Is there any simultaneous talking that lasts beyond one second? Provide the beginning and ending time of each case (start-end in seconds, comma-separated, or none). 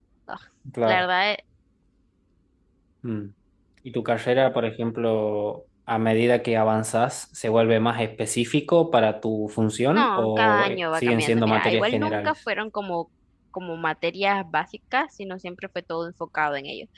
9.9-12.3